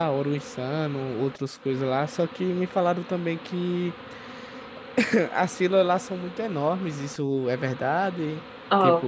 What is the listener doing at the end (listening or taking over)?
taking over